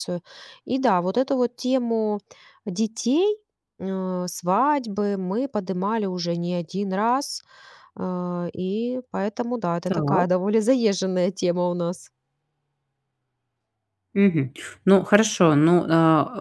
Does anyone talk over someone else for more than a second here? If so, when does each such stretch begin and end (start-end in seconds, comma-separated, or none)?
none